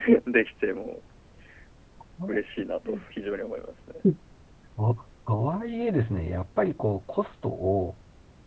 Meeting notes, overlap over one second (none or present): none